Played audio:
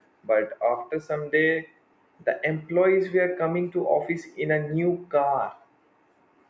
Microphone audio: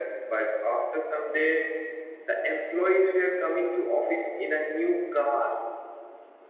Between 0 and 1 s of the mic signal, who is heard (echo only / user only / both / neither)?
echo only